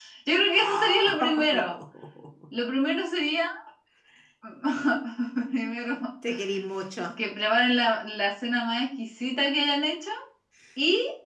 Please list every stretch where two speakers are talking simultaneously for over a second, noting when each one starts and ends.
0.6-1.8

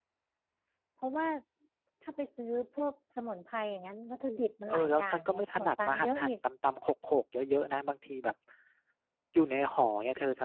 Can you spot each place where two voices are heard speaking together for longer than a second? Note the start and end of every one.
4.7-6.3

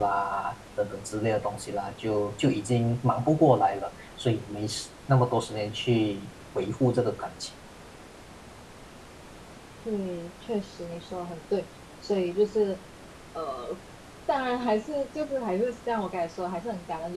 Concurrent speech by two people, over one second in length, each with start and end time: none

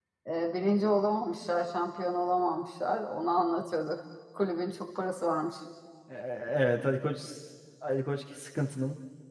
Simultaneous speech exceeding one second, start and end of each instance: none

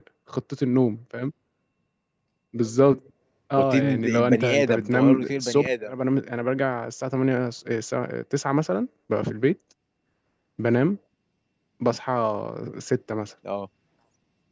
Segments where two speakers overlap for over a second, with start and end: 3.6-5.9

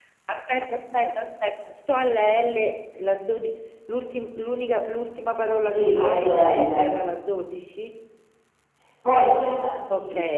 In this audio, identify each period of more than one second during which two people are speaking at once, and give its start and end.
5.6-6.9

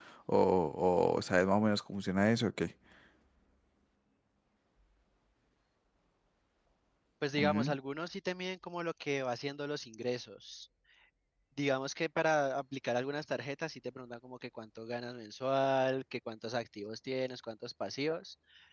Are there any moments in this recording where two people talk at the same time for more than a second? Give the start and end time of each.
none

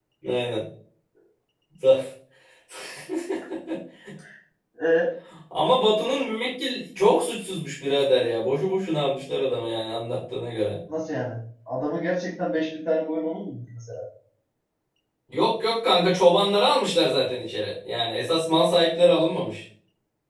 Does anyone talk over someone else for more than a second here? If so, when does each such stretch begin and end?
none

